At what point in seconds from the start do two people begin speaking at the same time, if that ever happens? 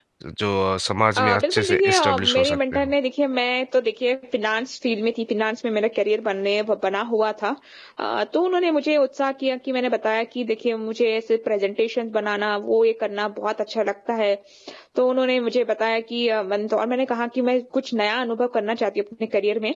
1 s

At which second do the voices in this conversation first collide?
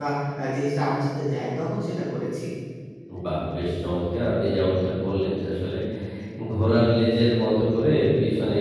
none

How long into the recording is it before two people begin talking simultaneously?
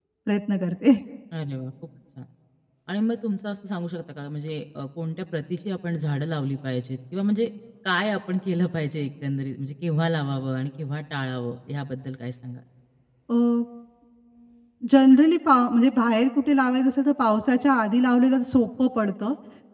none

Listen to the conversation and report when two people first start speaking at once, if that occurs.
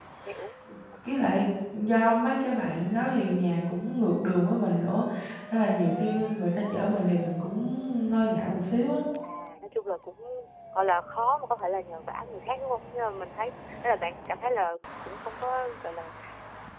none

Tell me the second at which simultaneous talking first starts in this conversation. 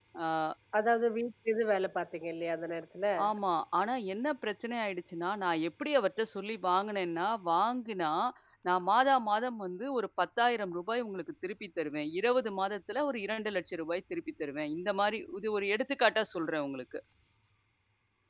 none

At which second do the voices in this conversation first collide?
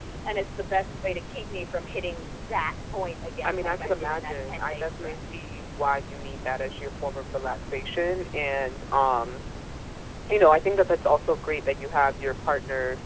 3 s

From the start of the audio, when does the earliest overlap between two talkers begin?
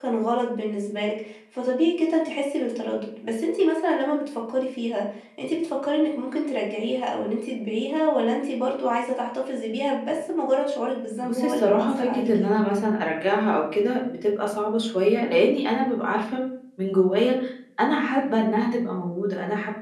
11 s

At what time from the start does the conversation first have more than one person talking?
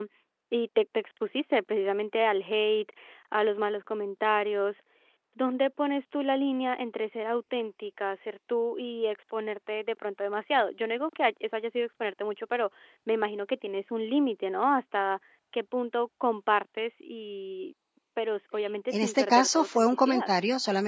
19 s

